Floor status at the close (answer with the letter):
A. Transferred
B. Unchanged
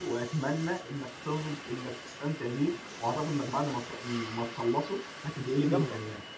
A